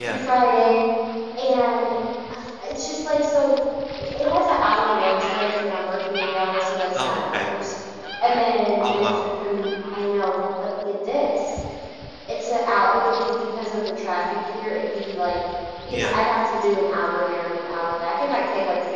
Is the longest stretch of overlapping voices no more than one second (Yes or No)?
Yes